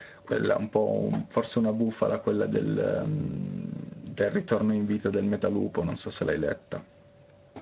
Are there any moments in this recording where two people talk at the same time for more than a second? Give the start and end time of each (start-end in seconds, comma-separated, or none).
none